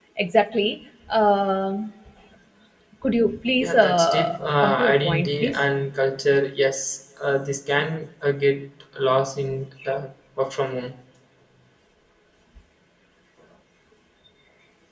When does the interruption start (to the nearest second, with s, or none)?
4 s